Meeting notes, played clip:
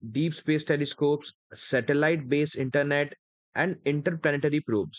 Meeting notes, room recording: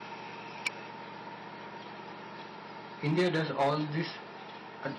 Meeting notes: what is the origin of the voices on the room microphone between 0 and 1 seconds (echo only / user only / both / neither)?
neither